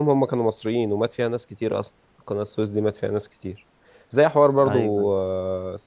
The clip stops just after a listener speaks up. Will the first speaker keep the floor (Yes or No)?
Yes